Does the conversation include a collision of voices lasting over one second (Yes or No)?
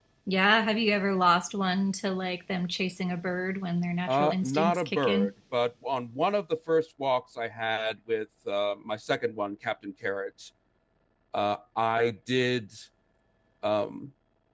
Yes